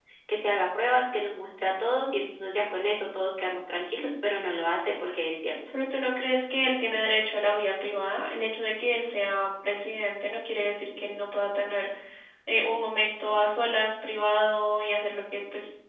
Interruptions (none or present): none